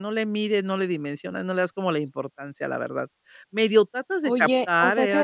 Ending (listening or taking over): taking over